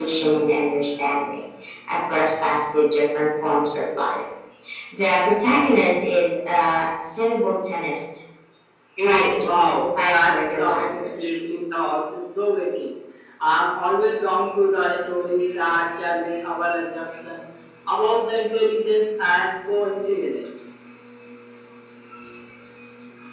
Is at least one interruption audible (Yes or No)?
Yes